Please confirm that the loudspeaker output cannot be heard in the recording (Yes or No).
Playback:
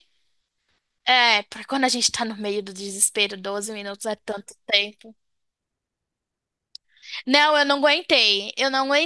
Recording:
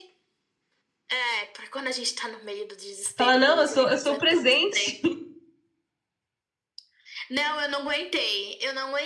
No